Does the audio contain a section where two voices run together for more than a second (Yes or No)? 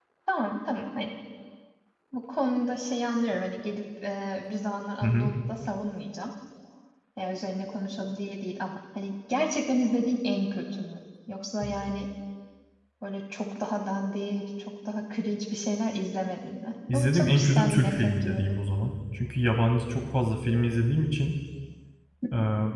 Yes